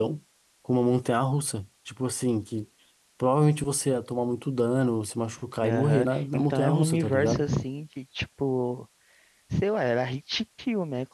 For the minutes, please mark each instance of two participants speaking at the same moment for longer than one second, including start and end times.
5.6-7.5

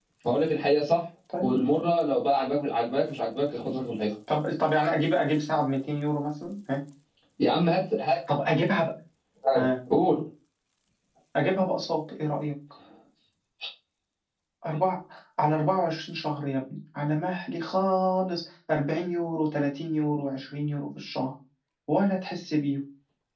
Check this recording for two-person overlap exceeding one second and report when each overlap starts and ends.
none

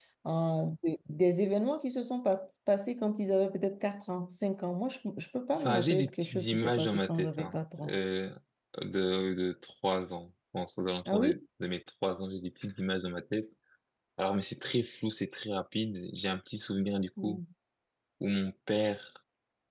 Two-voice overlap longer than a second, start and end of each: 5.5-8.0

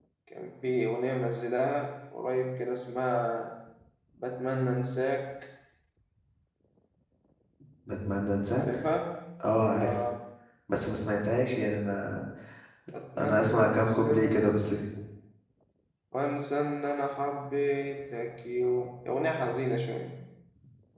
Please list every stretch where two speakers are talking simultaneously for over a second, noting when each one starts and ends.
13.2-14.4

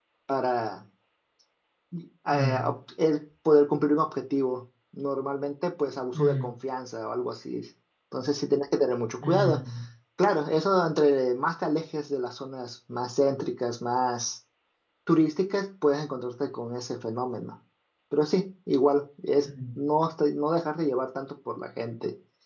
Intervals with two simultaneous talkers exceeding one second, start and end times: none

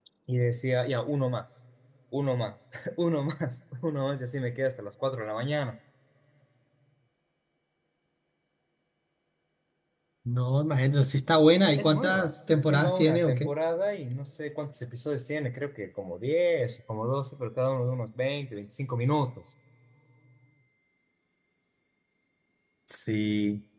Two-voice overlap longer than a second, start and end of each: 11.6-13.5

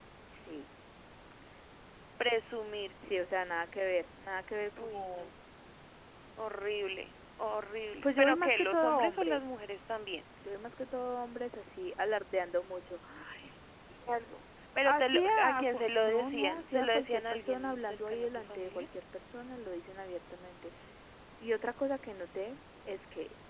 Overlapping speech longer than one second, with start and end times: 8.0-9.5, 14.8-18.9

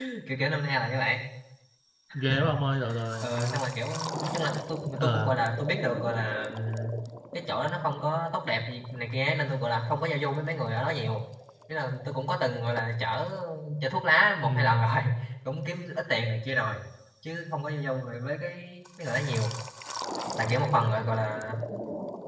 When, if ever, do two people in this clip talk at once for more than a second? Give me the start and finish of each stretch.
none

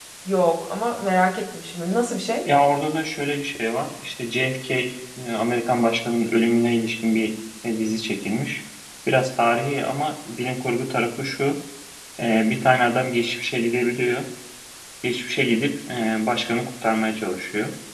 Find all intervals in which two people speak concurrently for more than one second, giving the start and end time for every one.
none

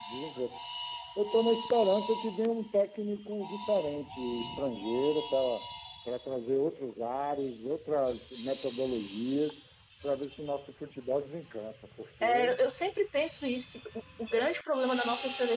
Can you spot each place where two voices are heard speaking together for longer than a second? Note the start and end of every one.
none

